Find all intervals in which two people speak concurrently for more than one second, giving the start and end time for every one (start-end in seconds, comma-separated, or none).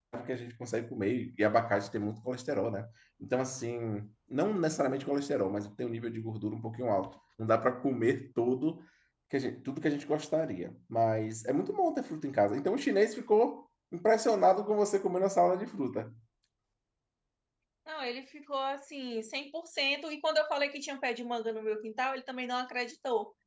none